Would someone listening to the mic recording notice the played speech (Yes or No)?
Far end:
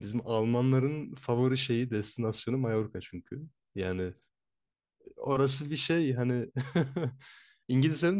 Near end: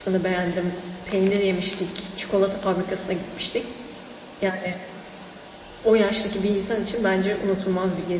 No